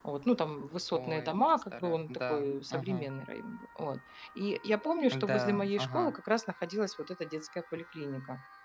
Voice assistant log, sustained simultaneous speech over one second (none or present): present